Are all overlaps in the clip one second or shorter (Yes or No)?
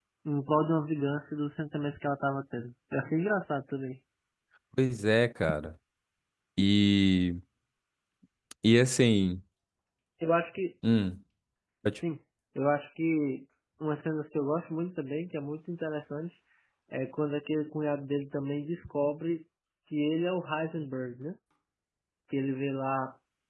Yes